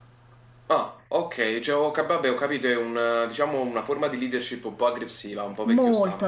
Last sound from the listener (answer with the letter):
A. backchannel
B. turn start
B